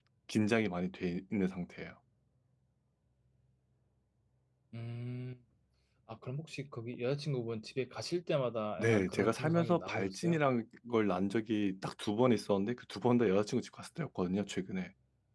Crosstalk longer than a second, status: present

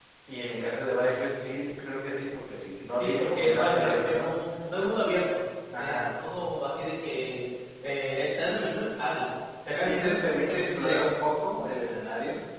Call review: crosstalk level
present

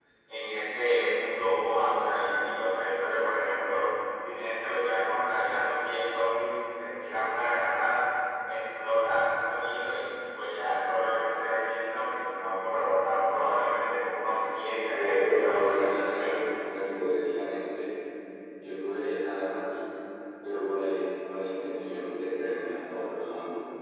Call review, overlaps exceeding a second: present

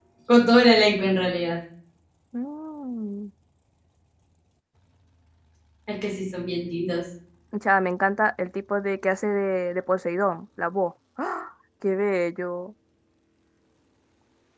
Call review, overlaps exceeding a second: none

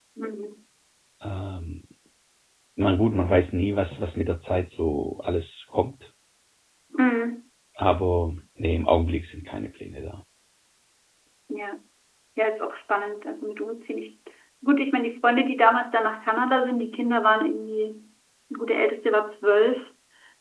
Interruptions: none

